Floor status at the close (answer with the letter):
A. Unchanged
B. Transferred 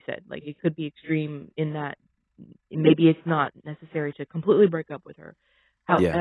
A